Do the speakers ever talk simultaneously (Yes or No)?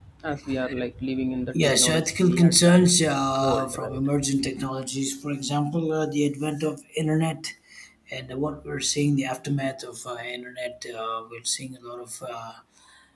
Yes